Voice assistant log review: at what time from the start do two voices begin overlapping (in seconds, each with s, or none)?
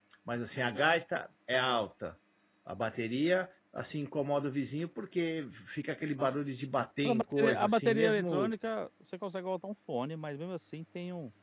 7.0 s